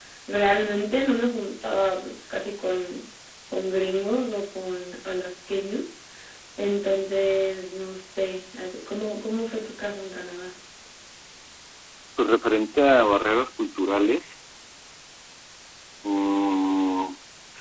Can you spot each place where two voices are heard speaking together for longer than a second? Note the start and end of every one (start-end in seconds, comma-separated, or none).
none